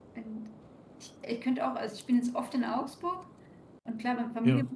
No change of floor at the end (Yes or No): Yes